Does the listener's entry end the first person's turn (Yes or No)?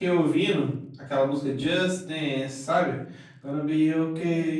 No